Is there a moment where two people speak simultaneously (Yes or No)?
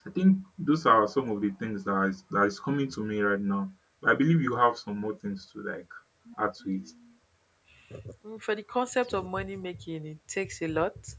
No